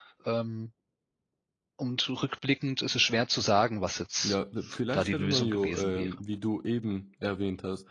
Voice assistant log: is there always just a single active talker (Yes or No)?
No